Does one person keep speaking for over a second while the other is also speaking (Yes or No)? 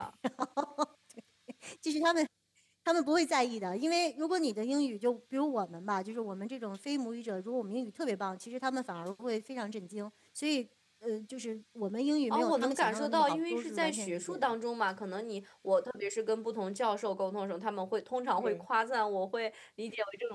Yes